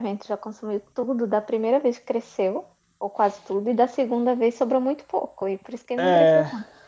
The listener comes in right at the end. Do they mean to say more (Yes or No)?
Yes